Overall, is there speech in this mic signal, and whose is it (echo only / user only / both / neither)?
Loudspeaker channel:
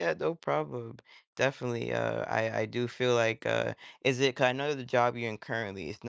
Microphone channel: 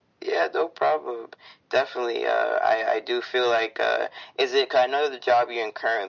echo only